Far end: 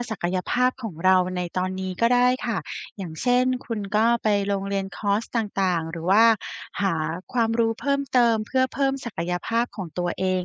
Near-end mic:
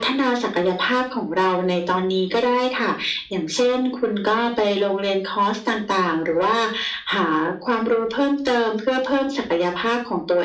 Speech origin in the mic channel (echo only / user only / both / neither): echo only